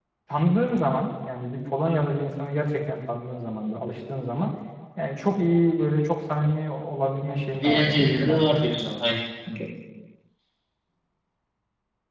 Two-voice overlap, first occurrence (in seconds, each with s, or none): 7.5 s